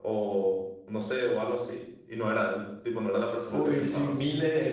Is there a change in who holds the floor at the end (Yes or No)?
Yes